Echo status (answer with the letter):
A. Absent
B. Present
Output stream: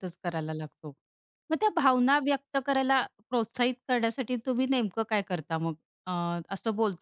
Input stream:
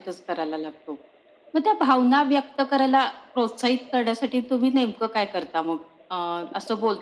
B